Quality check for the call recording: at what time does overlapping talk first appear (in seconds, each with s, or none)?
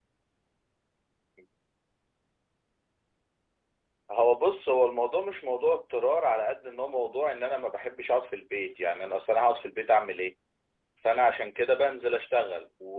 none